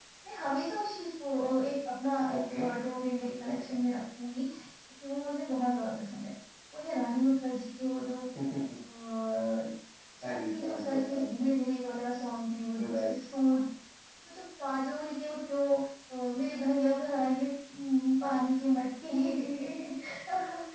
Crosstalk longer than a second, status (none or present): present